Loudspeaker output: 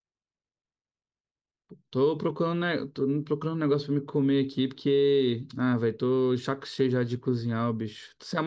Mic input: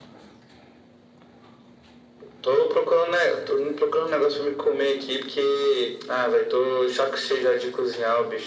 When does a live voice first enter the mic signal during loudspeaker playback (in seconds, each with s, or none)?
none